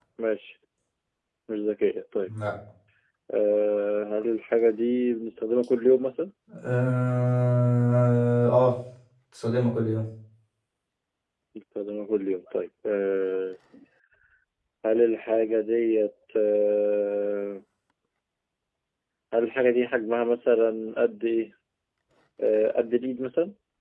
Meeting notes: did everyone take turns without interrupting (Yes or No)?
Yes